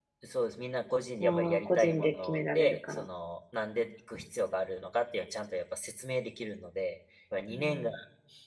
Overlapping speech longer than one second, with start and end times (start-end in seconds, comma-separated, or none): 1.2-3.0